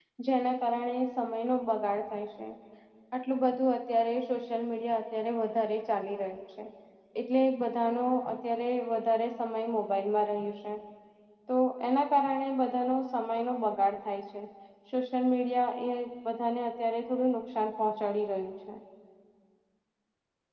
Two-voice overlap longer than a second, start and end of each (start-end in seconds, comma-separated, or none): none